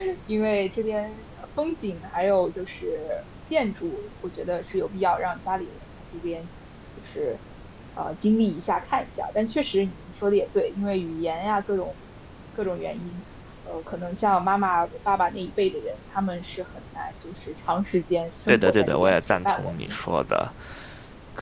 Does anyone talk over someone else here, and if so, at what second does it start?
18 s

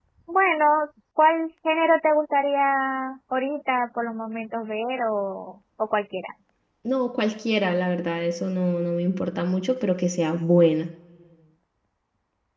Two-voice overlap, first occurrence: none

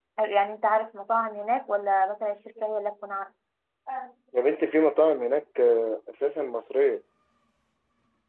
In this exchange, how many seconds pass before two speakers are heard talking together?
none

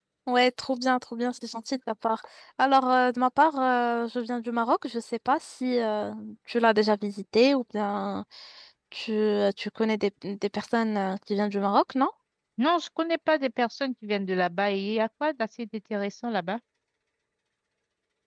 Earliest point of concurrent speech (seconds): none

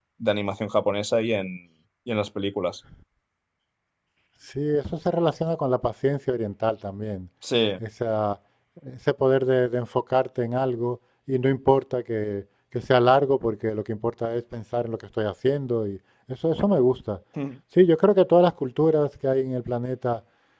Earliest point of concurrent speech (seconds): none

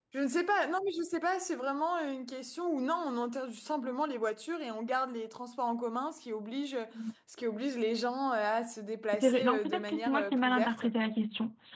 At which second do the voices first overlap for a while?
9 s

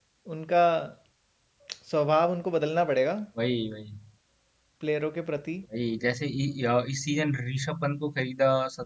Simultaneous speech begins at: none

